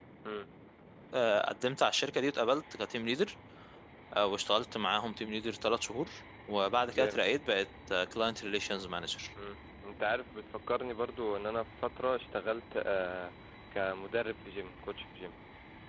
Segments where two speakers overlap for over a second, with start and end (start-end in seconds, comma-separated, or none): none